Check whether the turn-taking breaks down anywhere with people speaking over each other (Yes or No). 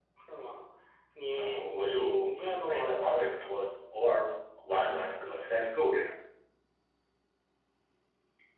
Yes